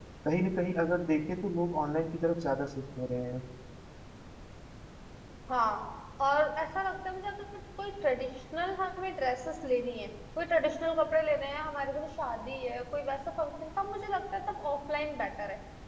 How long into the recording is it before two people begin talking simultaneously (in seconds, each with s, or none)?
none